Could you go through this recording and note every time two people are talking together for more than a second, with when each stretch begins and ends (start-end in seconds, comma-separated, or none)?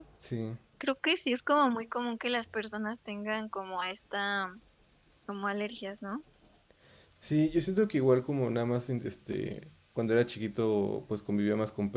none